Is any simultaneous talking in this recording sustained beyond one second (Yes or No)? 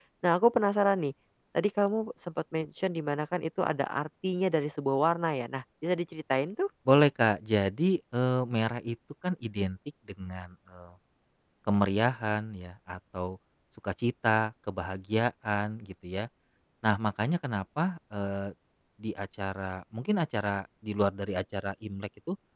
No